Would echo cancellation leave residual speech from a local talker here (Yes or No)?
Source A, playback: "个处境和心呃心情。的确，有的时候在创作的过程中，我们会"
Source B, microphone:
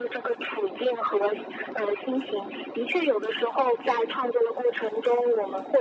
No